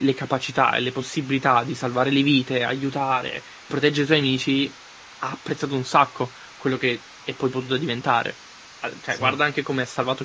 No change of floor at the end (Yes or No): Yes